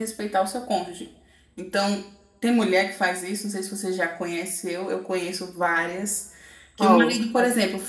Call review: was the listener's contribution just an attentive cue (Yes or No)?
Yes